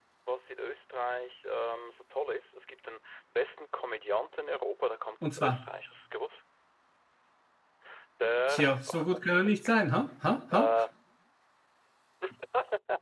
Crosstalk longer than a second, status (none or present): present